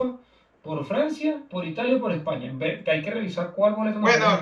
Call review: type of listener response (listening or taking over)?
taking over